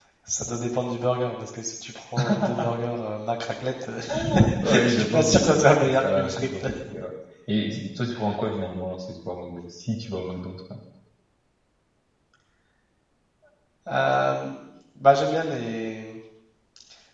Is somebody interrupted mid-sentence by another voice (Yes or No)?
Yes